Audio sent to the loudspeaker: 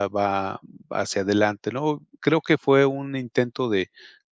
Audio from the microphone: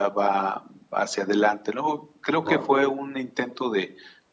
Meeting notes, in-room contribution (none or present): present